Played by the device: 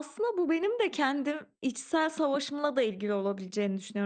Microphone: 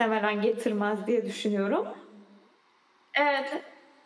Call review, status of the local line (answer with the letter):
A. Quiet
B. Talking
B